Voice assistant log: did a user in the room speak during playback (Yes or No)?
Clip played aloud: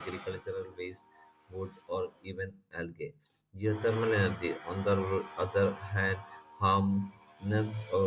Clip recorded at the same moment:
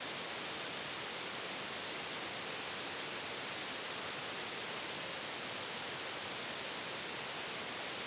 No